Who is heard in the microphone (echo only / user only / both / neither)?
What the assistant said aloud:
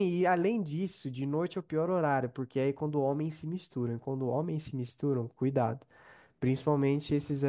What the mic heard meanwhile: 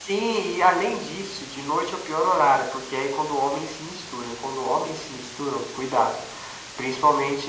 echo only